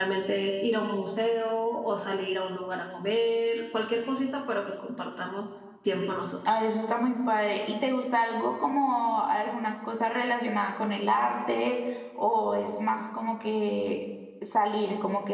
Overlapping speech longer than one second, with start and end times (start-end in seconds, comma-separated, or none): none